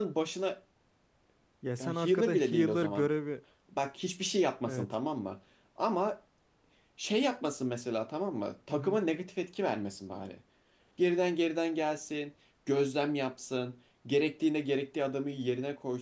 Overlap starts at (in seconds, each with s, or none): 1.8 s